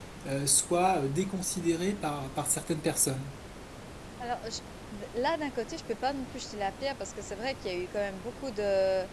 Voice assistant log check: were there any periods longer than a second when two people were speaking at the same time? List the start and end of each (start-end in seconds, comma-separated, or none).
none